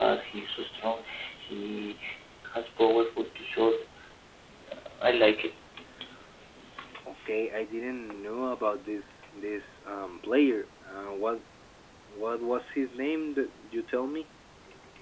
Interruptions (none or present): none